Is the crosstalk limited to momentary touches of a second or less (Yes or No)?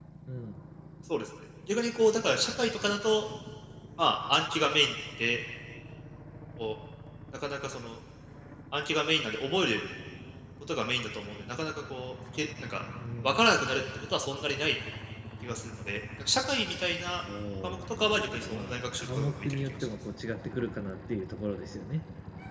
No